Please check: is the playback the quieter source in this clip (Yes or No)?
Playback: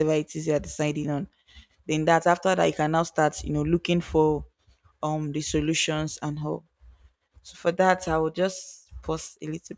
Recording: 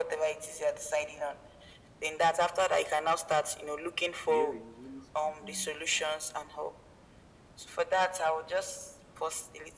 No